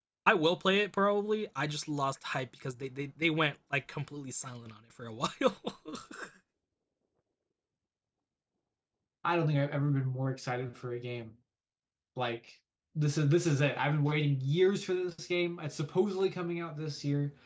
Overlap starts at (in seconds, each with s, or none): none